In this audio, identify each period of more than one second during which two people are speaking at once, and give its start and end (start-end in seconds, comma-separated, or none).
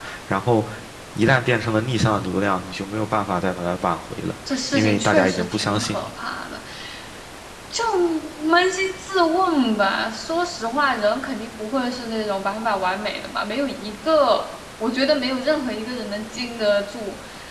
4.5-6.1